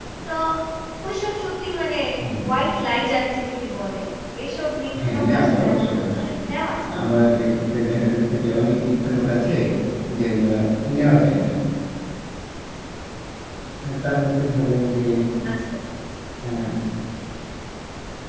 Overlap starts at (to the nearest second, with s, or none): 5 s